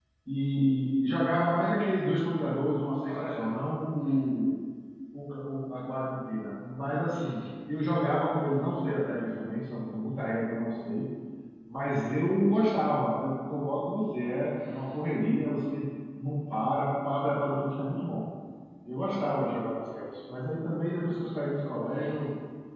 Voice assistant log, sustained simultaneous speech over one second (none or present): none